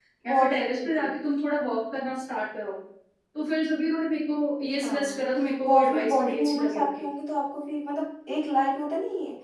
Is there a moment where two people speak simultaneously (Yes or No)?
Yes